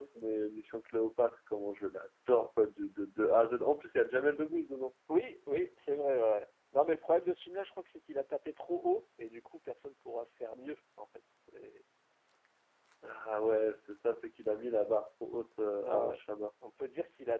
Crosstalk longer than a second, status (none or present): none